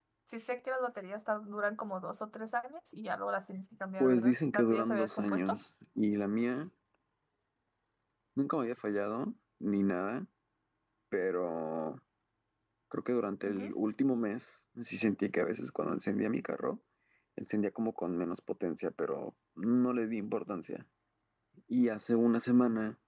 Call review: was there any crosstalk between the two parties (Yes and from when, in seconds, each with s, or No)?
Yes, from 4.0 s